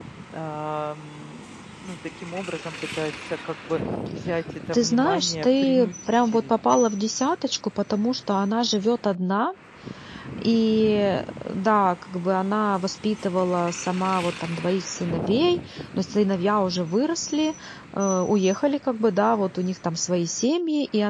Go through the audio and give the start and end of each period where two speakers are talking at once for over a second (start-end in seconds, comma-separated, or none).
4.7-6.6